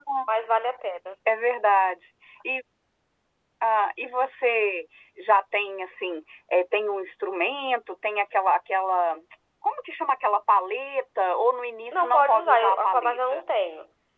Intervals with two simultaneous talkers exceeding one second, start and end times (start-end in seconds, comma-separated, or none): 11.9-13.4